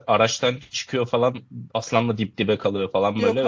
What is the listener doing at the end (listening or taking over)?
listening